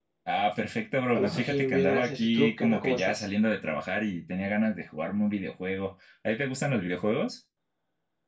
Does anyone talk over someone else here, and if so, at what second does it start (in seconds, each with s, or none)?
1.1 s